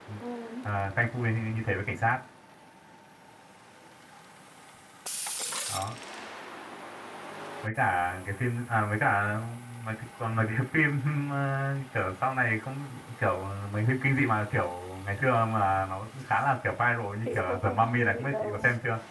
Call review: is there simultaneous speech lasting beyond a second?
Yes, from 17.2 s

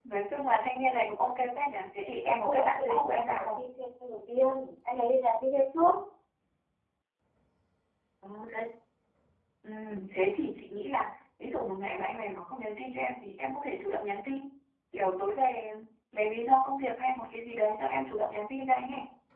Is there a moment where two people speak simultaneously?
Yes, from 2.0 s

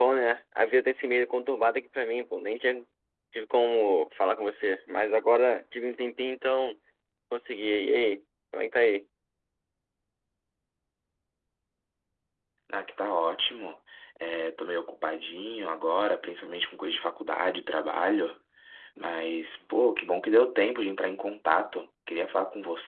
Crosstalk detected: No

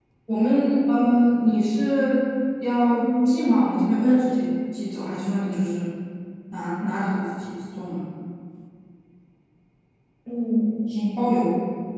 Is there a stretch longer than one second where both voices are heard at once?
No

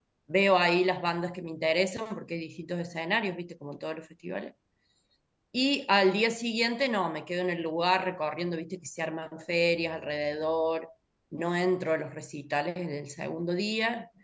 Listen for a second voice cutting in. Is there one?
No

